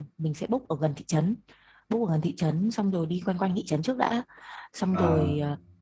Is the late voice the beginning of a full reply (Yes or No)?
No